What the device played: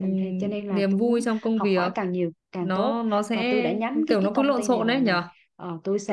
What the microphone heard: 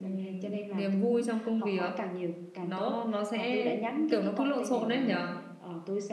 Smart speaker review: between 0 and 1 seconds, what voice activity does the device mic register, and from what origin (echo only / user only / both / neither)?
echo only